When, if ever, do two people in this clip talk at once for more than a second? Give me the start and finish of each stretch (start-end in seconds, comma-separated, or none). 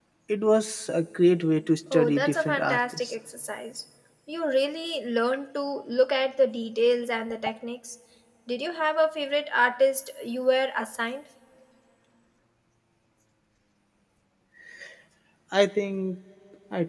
1.9-3.1